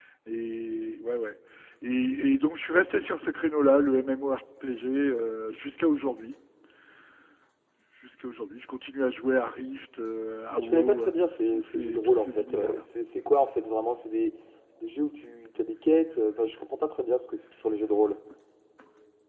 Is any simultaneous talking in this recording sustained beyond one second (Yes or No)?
Yes